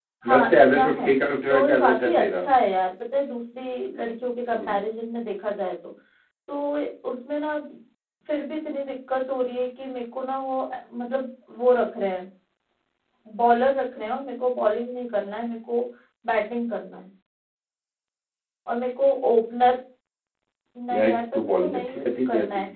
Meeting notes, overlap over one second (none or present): present